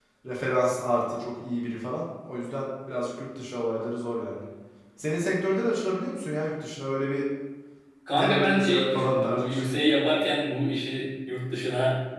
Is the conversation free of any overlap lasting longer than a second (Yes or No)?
No